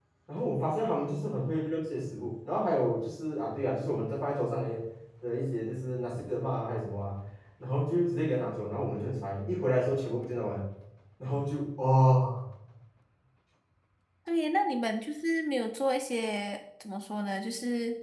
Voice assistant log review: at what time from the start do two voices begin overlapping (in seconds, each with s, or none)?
none